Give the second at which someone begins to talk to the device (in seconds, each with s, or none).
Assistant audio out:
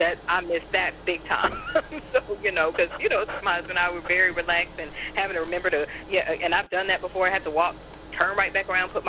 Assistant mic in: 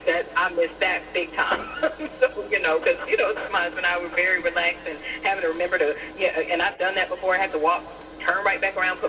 none